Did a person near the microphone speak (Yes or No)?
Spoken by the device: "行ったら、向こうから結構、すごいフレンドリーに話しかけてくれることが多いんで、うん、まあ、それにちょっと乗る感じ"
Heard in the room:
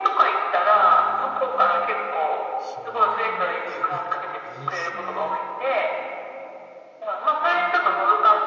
Yes